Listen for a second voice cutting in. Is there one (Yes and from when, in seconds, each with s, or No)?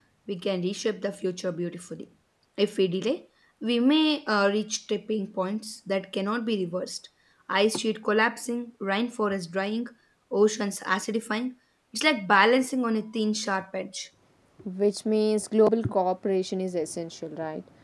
No